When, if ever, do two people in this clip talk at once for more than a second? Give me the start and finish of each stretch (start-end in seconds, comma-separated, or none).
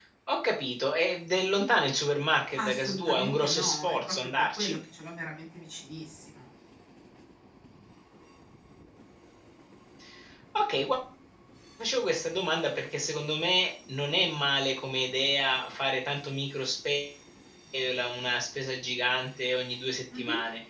2.5-4.8